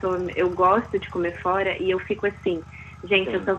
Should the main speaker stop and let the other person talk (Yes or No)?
No